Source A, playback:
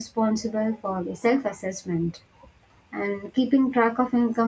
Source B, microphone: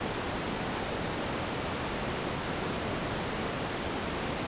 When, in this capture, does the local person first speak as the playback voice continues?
none

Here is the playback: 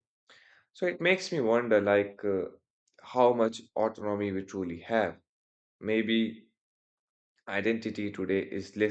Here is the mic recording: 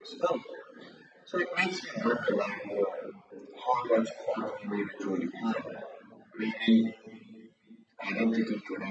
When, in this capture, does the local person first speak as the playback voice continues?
none

